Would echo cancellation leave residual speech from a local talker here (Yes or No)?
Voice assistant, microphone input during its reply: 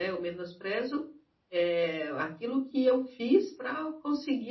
Yes